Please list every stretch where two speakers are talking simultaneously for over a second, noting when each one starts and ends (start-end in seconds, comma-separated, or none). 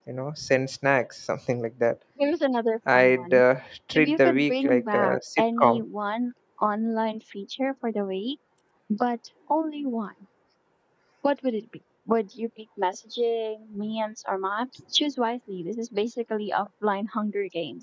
3.9-5.8